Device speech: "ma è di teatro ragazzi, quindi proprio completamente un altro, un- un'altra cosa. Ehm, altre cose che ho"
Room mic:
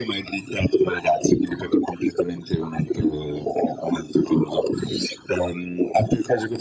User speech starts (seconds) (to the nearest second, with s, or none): none